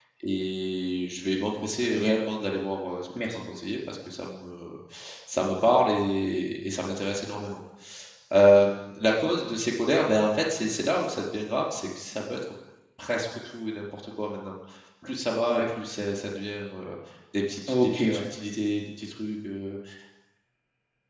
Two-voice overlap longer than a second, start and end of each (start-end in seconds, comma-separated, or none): none